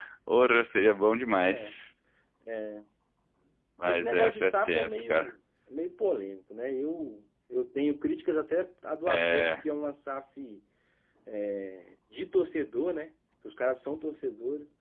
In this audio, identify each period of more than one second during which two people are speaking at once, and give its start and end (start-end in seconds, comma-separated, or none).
3.8-5.3